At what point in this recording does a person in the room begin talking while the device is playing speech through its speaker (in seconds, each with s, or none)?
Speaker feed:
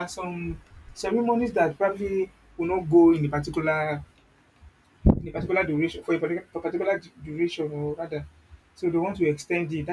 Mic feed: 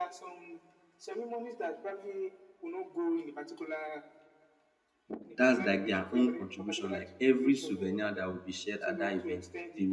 5.4 s